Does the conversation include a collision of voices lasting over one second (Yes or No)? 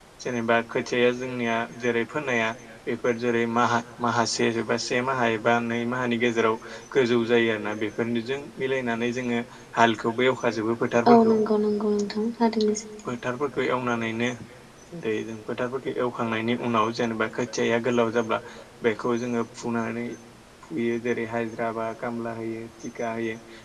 No